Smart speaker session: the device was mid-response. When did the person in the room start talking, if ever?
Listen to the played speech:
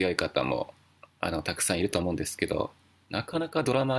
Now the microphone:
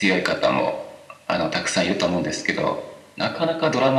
none

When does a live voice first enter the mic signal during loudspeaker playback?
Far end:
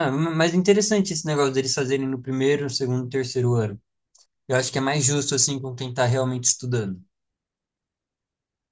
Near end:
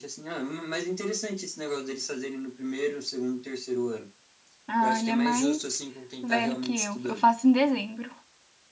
5 s

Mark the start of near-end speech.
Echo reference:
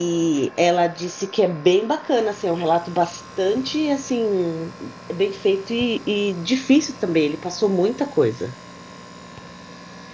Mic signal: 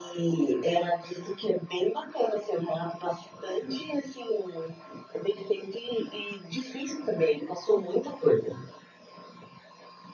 none

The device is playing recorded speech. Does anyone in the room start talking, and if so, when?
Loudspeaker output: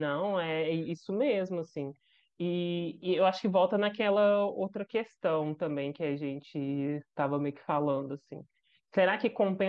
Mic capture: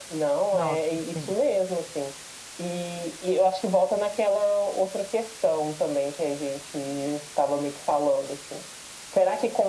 1 s

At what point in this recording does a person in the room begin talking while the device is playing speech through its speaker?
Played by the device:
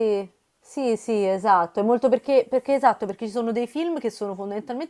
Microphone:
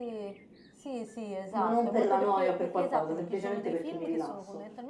1 s

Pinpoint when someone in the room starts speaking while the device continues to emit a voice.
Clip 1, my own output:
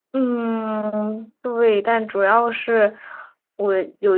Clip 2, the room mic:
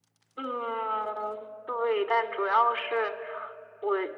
none

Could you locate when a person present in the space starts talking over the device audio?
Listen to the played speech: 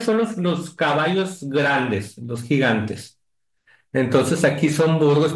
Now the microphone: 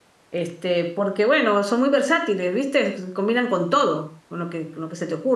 0 s

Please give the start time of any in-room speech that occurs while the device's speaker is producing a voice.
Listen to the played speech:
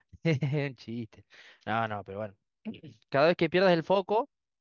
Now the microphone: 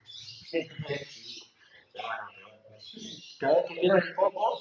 none

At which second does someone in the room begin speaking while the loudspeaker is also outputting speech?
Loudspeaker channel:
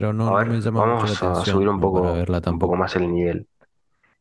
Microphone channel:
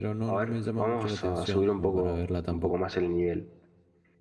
none

